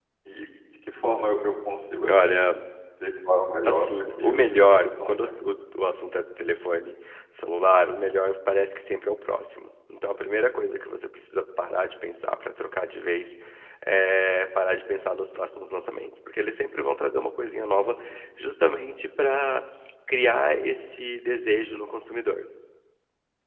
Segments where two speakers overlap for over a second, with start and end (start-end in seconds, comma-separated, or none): 3.6-5.3